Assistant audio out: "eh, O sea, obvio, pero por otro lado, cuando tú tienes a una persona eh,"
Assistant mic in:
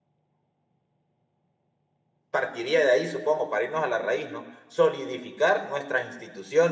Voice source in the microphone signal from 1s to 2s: neither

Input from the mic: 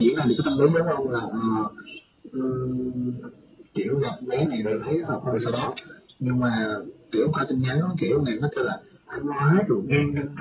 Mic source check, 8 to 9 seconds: echo only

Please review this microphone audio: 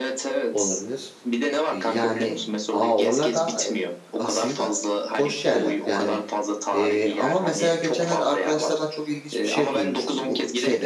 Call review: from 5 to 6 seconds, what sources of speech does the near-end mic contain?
both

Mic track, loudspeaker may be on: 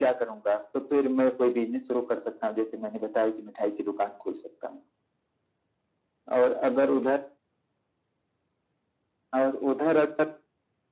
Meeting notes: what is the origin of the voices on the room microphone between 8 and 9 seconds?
neither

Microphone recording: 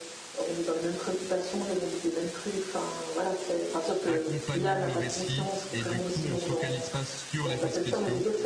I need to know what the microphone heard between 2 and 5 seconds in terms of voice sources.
both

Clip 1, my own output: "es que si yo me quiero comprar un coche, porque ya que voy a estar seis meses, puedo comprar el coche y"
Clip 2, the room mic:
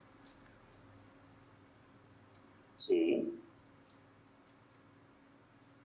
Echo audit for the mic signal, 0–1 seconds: neither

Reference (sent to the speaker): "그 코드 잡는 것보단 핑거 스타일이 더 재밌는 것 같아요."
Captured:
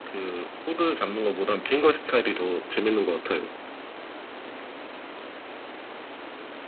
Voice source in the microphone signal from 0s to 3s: echo only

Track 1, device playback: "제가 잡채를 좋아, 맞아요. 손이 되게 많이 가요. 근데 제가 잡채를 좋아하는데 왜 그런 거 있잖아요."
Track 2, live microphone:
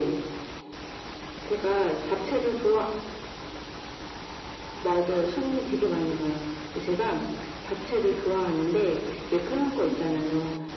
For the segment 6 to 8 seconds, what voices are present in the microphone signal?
echo only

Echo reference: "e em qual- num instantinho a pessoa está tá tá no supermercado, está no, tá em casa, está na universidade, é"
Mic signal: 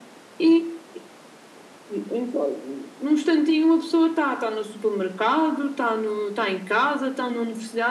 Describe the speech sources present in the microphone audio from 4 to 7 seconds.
echo only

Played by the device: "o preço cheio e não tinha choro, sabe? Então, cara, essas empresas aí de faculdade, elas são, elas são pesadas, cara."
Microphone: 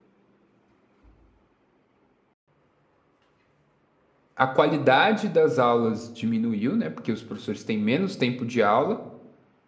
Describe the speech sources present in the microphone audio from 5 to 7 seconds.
user only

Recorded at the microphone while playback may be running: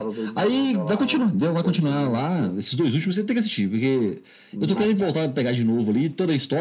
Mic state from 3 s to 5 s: echo only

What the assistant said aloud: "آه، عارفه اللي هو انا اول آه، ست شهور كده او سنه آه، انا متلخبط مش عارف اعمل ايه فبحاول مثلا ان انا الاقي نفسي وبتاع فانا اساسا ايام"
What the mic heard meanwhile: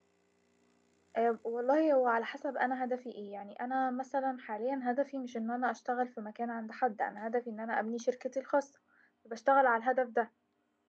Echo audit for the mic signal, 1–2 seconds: user only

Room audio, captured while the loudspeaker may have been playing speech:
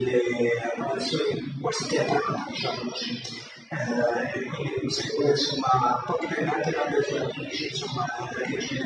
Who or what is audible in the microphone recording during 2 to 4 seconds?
echo only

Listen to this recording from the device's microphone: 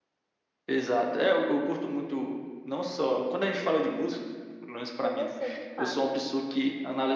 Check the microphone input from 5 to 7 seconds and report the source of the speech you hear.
both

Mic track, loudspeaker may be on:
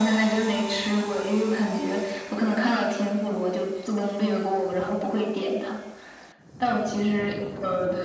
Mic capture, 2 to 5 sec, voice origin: echo only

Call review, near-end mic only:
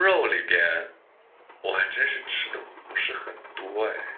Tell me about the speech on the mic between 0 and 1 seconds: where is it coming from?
echo only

